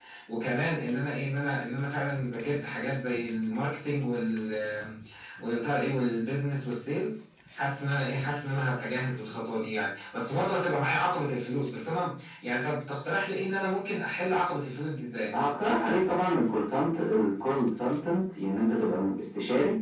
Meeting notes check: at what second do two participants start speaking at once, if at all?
none

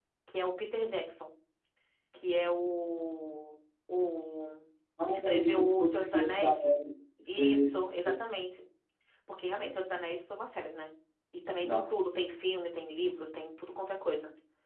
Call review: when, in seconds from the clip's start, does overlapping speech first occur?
5.1 s

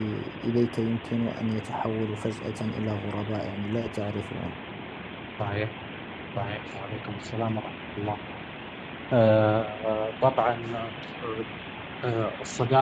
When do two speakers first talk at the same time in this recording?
none

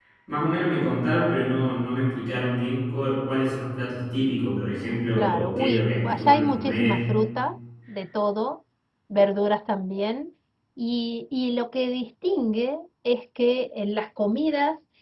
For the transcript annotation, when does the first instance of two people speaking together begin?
5.2 s

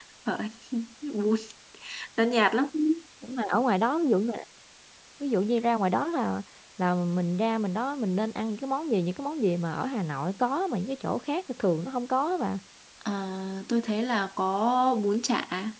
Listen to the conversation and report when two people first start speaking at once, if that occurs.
none

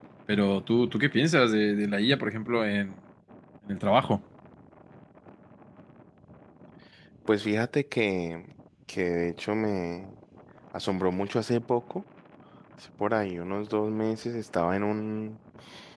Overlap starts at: none

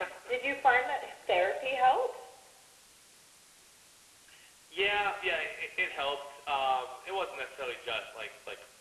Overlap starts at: none

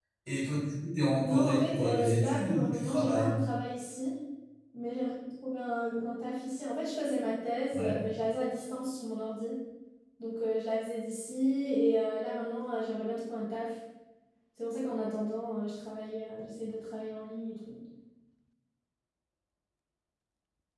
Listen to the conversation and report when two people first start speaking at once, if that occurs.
1.2 s

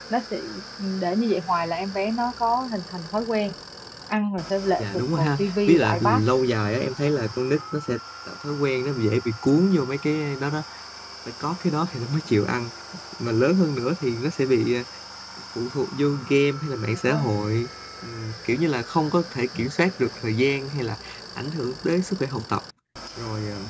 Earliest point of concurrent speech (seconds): 4.8 s

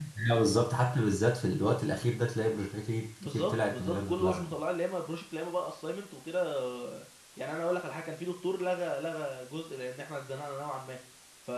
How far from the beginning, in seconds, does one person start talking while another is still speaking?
3.2 s

